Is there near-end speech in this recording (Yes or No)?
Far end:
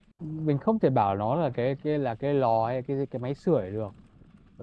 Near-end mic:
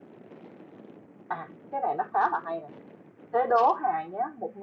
Yes